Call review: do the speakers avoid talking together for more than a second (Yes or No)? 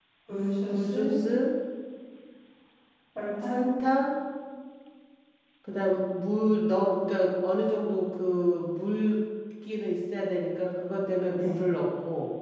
Yes